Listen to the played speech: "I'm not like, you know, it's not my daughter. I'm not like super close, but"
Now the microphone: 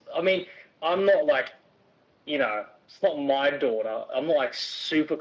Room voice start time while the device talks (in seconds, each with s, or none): none